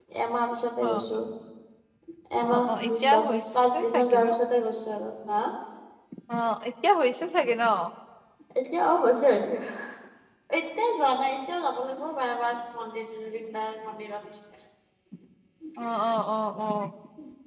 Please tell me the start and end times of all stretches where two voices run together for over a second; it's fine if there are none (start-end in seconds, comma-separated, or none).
2.4-4.3